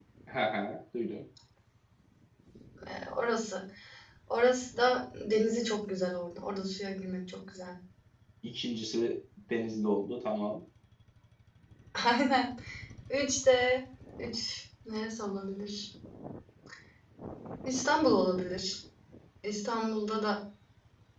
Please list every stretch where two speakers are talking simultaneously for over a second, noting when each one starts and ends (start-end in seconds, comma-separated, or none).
none